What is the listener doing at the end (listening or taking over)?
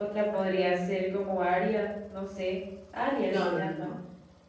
taking over